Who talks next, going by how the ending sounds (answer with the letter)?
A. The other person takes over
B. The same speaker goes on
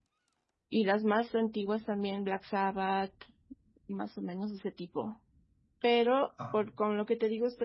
B